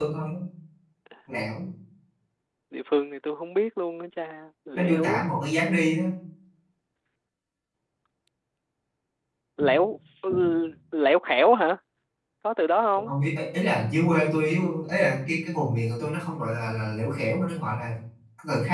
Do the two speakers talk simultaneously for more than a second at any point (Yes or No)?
No